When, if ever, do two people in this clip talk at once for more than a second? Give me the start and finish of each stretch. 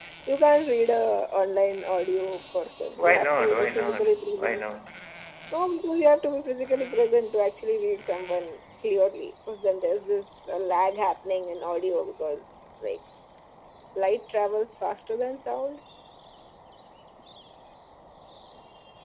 2.9-4.6

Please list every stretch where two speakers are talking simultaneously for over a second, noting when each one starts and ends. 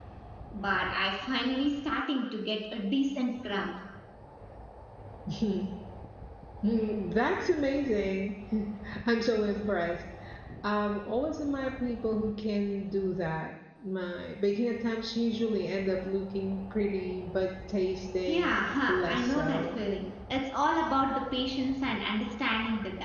18.3-19.8

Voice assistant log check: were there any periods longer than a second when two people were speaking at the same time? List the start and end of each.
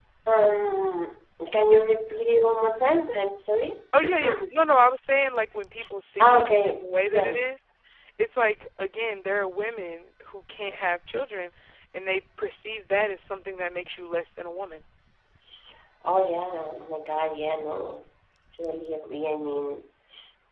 6.2-7.5

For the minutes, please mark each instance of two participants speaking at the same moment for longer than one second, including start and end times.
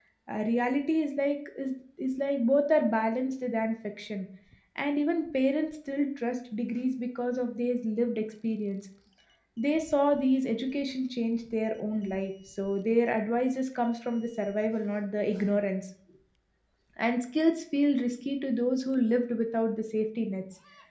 none

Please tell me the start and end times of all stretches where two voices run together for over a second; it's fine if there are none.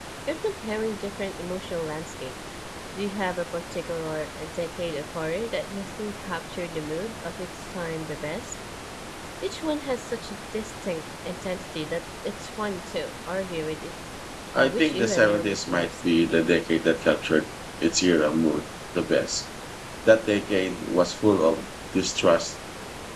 14.5-15.9

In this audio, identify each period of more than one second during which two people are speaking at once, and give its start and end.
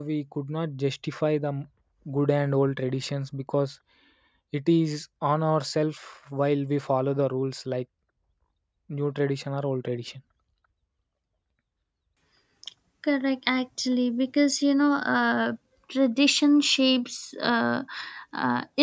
none

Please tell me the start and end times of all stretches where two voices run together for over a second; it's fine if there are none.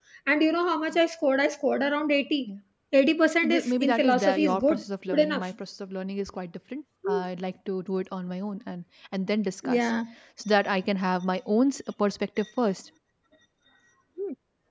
3.4-5.4

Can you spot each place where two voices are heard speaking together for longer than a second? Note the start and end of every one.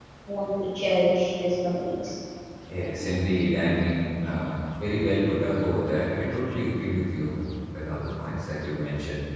none

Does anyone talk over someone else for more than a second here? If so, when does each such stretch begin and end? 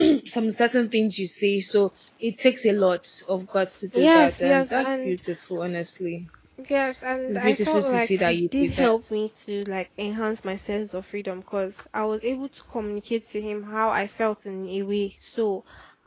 3.9-5.2, 7.3-9.0

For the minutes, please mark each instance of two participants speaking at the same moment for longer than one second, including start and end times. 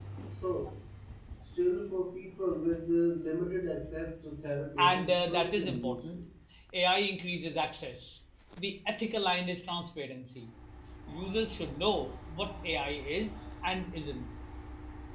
4.8-6.2

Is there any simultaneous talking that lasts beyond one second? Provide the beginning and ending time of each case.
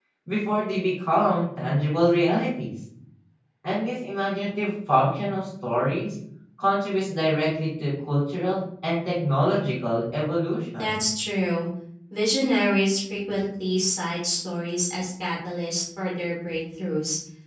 none

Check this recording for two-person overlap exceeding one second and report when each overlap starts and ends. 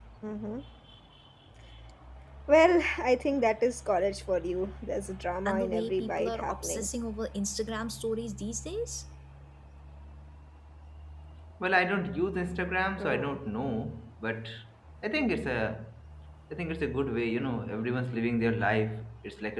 5.5-6.9

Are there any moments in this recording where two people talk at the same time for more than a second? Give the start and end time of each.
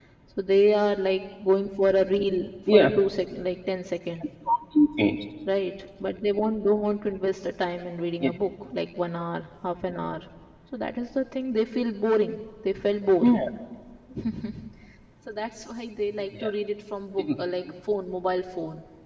none

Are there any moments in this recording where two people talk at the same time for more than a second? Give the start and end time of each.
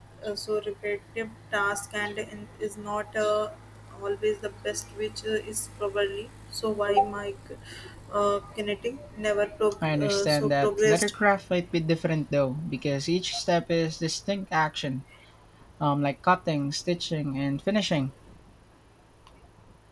9.8-11.1

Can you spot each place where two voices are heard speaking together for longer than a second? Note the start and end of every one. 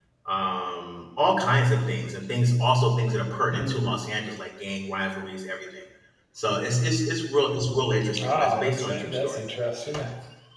8.2-9.4

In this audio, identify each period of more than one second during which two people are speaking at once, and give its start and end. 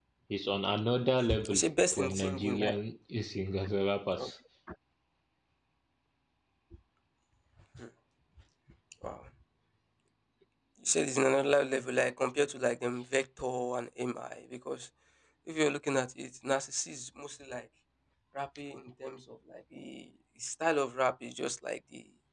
1.5-2.8

